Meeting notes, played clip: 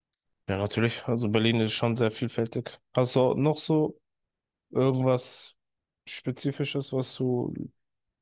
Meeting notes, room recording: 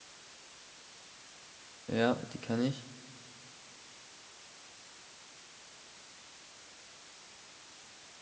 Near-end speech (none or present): present